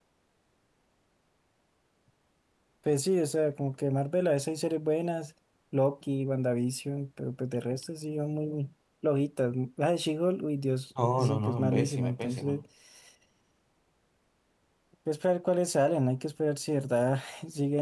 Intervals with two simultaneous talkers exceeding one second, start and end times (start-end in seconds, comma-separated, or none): 11.2-12.6